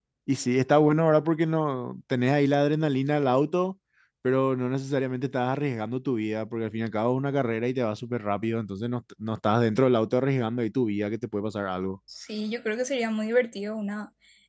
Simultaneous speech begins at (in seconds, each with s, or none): none